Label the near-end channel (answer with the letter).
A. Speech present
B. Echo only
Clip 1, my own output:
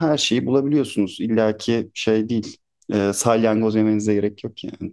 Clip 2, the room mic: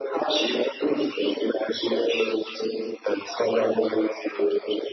B